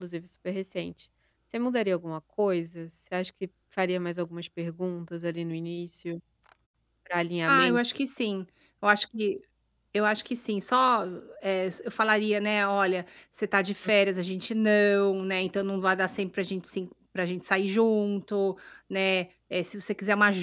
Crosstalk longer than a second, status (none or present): none